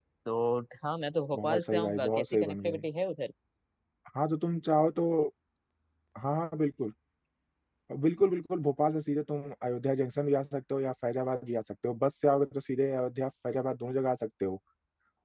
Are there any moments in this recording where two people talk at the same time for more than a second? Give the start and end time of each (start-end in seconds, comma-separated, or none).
1.4-2.8